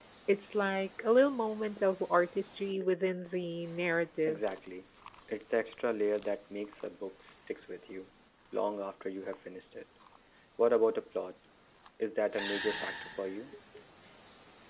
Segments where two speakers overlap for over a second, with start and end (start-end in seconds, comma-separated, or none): none